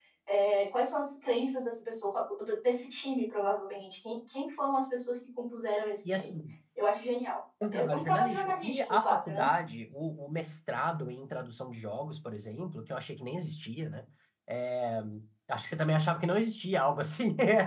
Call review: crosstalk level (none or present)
present